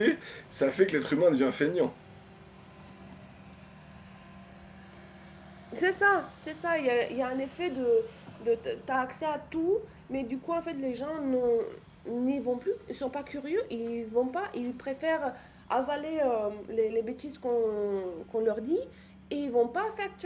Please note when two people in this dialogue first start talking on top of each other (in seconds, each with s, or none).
none